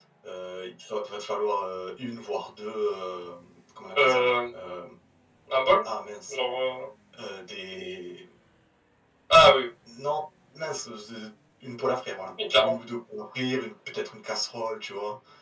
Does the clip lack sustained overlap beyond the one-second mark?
Yes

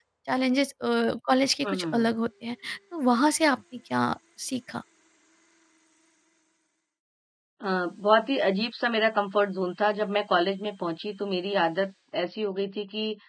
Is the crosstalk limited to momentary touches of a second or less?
Yes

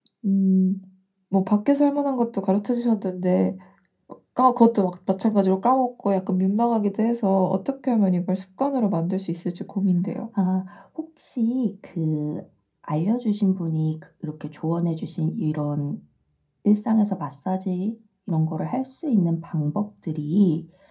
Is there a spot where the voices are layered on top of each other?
No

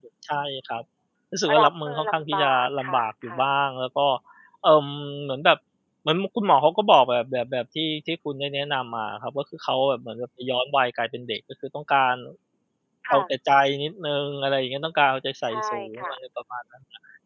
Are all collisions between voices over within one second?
No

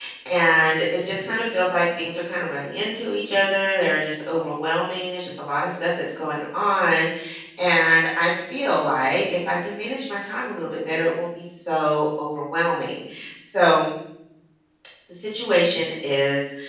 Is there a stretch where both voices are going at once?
No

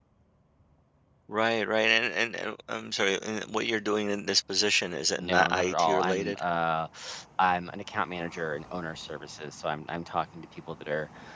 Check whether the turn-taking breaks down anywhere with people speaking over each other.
Yes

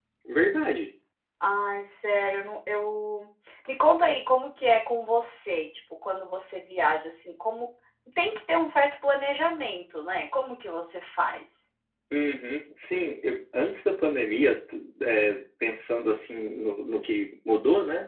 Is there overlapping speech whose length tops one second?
No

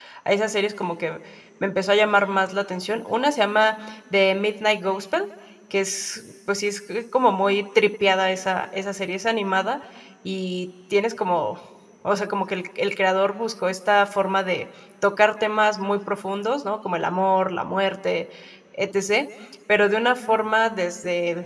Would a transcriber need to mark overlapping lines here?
No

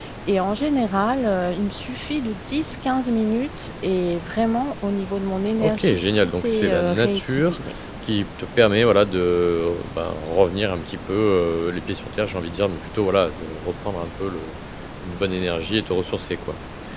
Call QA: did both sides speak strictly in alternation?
No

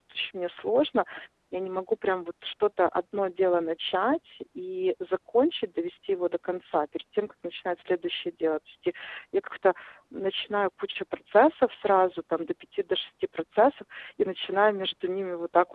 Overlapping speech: No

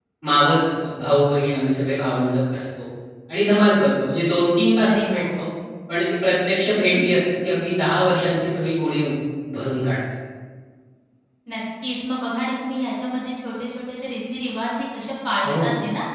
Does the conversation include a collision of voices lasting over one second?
No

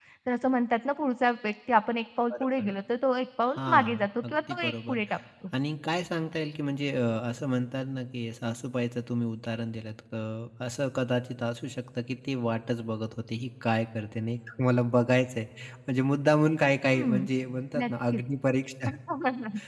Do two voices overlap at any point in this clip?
Yes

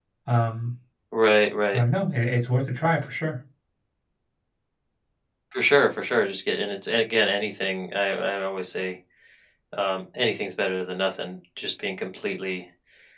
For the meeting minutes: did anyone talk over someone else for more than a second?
No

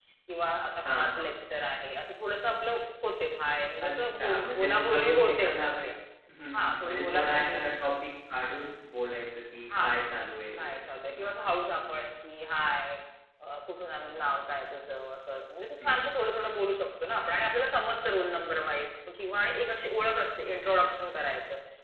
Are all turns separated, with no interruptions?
No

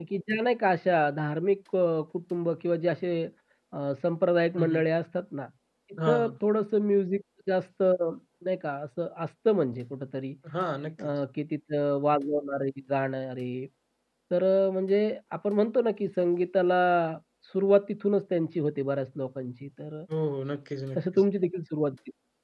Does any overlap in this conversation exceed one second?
No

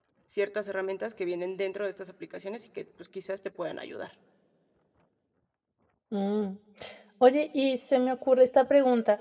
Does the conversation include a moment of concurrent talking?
No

